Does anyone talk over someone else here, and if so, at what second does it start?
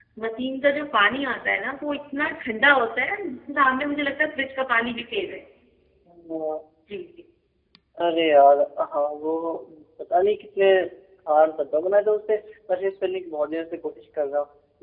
none

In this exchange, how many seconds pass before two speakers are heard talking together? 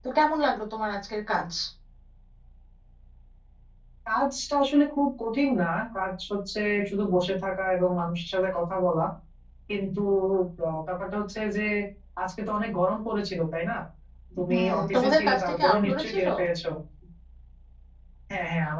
14.5 s

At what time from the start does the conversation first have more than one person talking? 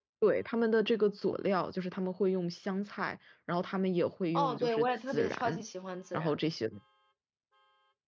4.3 s

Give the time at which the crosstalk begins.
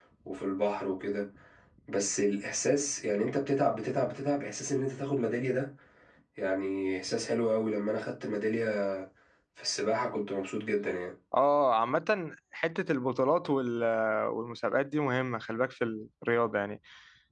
none

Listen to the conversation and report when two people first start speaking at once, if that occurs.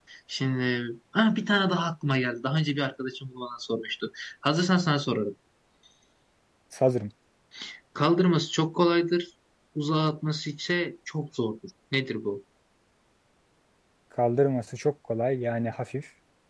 none

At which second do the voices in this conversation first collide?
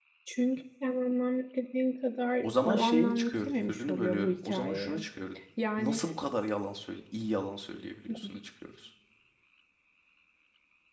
2.4 s

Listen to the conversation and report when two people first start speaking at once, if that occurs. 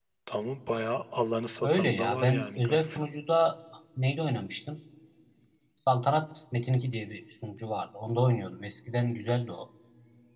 1.6 s

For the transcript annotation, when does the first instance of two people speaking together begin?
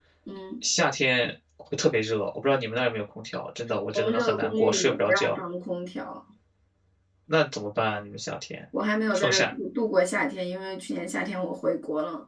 4.0 s

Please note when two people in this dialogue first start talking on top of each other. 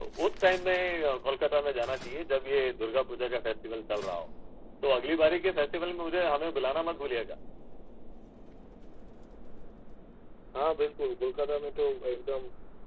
none

